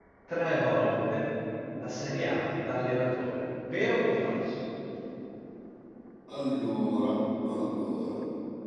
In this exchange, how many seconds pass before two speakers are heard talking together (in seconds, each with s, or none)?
none